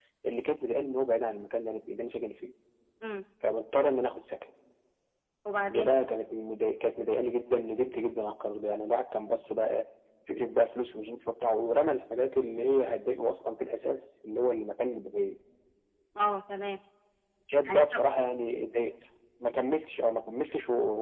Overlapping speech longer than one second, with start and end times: none

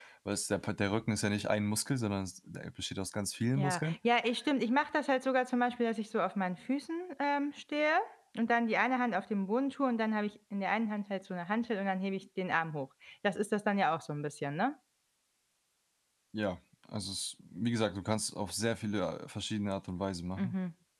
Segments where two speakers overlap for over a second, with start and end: none

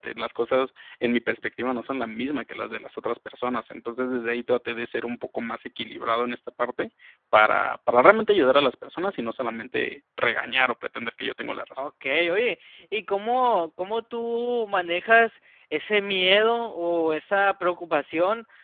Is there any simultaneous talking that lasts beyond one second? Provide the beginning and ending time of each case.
none

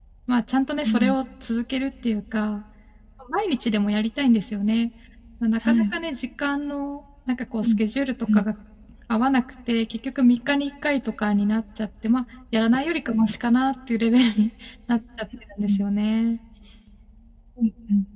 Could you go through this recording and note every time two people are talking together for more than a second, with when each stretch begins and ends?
none

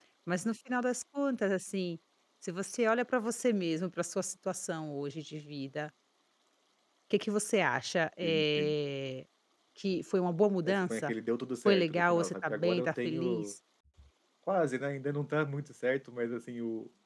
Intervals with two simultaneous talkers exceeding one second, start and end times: 11.7-13.5

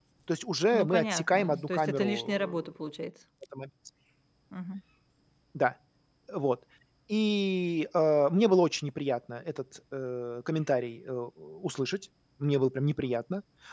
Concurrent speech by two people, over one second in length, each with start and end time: 0.7-2.6

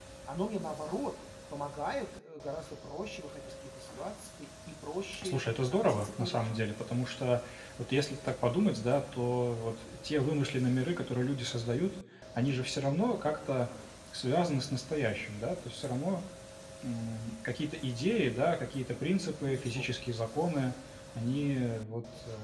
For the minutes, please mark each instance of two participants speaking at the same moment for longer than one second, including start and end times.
5.2-6.5

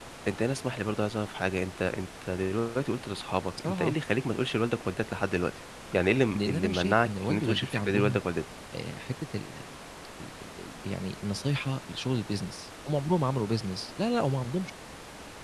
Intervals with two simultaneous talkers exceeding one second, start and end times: 6.3-8.2

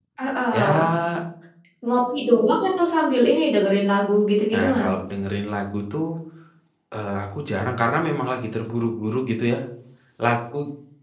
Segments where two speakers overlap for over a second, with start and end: none

